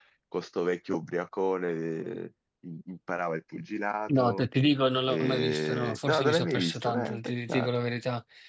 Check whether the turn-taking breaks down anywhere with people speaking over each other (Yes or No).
Yes